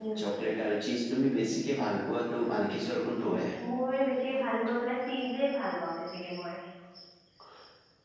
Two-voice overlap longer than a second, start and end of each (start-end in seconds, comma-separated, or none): none